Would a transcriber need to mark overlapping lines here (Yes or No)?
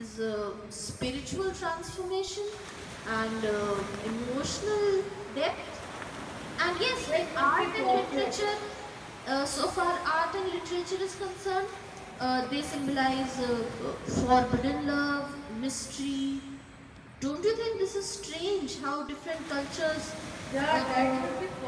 Yes